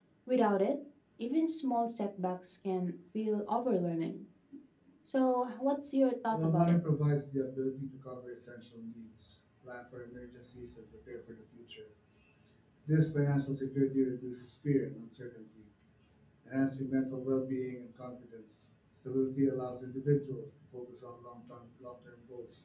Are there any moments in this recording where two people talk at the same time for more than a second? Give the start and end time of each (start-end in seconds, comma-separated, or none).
none